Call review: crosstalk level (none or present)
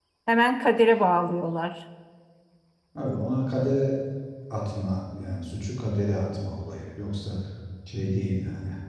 none